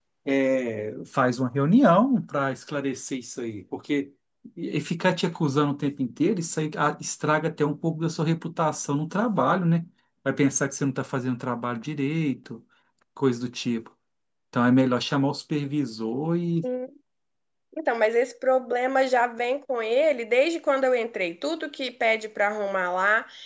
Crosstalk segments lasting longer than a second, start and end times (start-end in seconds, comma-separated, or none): none